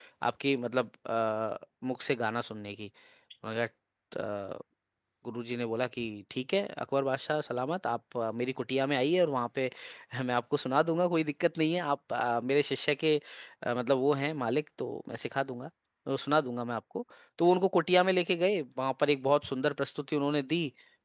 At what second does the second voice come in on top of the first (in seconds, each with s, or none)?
none